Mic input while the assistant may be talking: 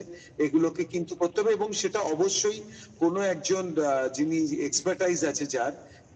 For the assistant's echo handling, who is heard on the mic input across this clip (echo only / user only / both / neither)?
echo only